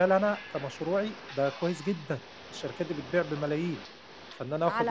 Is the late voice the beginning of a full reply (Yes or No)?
Yes